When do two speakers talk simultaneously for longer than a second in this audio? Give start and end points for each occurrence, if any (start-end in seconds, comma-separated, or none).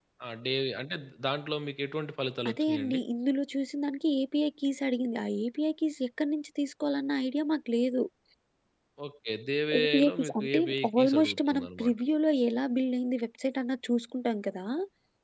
9.8-12.0